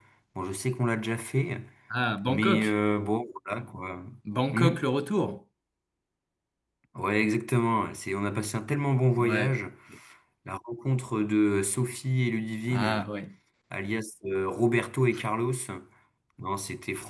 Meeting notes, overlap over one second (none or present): none